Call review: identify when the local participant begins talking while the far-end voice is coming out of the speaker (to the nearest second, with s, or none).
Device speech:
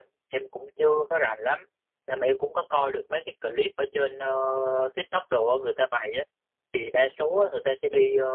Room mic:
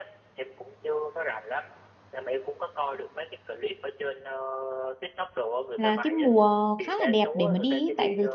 6 s